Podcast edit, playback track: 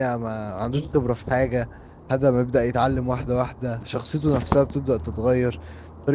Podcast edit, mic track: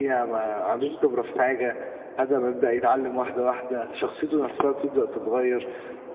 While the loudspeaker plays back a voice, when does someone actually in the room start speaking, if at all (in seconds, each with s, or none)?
none